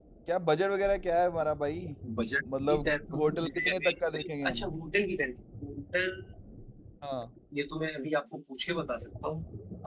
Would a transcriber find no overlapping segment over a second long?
No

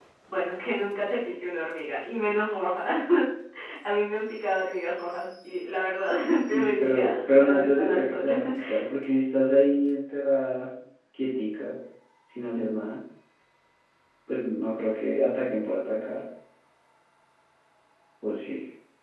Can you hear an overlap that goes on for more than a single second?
Yes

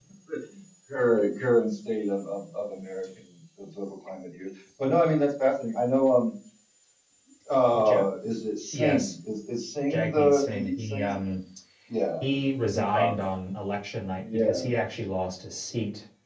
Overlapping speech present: Yes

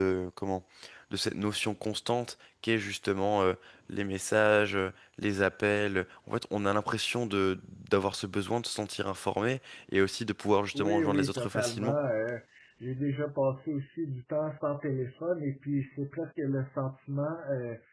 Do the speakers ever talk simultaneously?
Yes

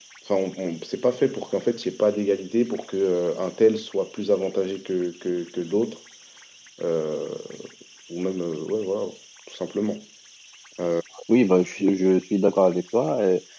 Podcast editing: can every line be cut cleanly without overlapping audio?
Yes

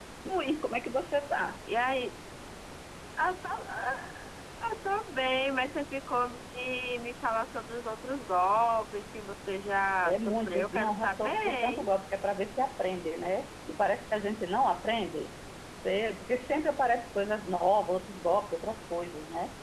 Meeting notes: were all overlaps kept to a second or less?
No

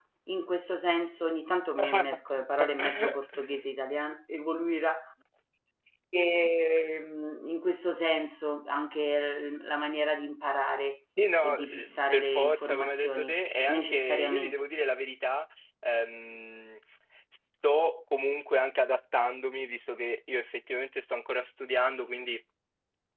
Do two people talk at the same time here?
Yes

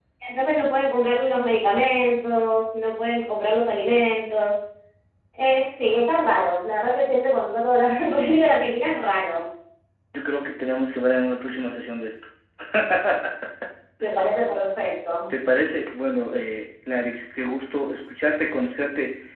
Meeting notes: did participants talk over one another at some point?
No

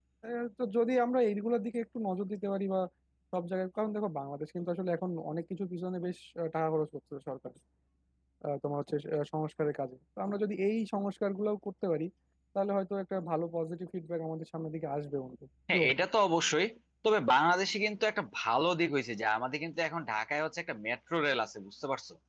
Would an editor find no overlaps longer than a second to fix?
Yes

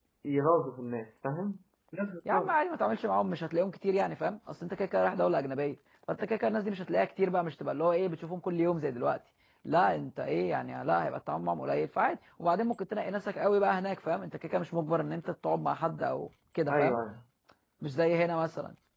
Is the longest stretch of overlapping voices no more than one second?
Yes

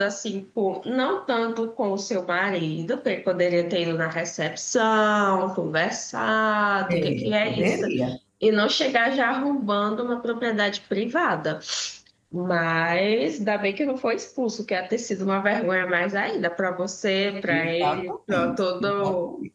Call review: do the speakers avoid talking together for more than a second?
No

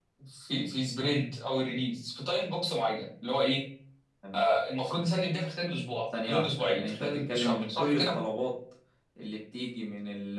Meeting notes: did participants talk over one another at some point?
Yes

